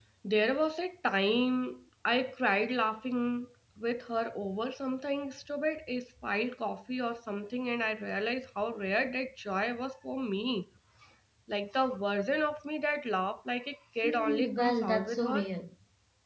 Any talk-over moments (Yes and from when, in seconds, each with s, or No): Yes, from 14.0 s